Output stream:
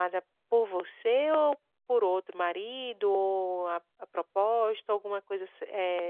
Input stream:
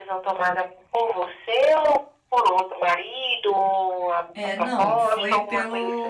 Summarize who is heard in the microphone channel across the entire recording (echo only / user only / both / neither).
both